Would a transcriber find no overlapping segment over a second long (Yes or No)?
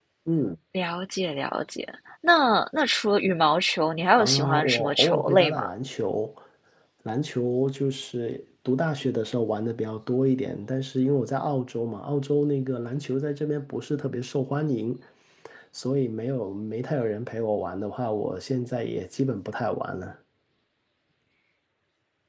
No